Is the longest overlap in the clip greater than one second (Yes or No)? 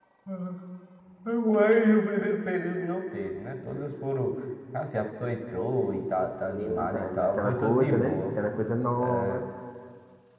Yes